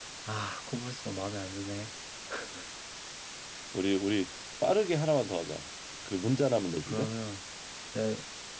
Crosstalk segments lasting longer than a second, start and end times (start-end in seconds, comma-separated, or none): none